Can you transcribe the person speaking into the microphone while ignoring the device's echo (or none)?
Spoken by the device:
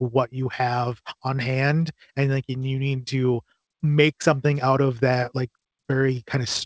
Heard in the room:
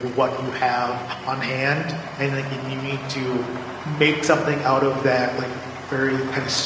none